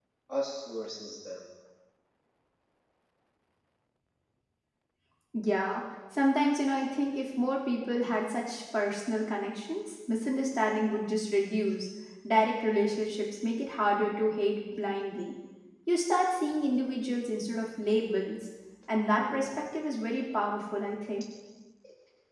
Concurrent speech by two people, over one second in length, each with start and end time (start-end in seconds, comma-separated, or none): none